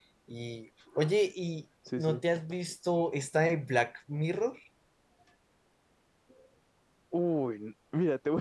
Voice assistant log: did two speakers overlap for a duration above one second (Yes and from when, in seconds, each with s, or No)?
No